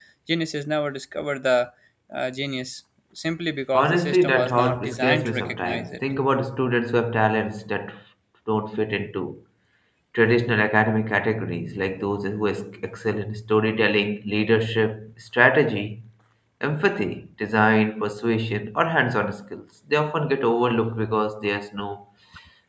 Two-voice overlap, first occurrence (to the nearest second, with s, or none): 4 s